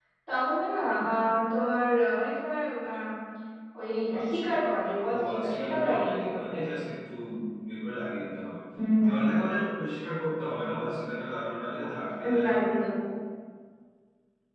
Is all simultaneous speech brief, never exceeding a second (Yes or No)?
No